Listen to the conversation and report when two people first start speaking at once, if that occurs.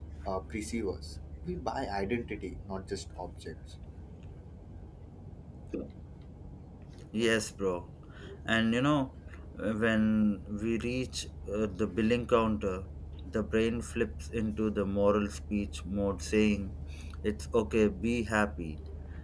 none

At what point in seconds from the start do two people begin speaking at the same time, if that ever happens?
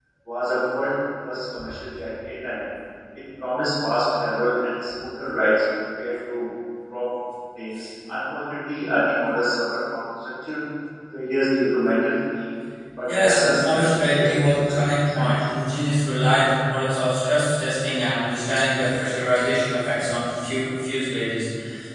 13.1 s

